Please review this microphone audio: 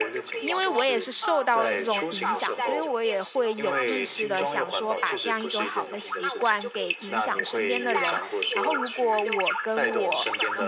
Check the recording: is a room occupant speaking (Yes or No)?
Yes